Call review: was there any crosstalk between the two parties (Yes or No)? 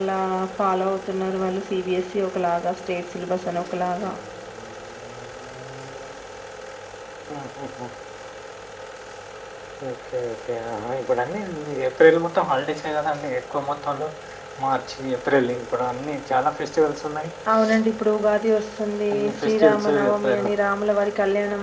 Yes